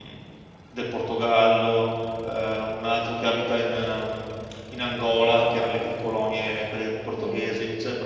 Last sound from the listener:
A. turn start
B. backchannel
B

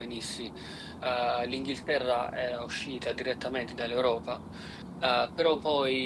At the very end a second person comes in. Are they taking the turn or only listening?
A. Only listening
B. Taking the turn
A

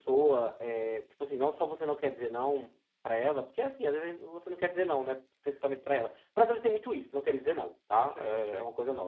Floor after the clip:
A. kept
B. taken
A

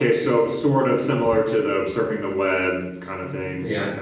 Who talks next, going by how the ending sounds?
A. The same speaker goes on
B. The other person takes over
B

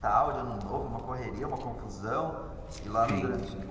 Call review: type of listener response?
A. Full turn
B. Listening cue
B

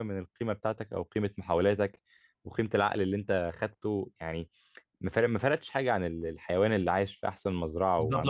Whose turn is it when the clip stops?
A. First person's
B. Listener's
B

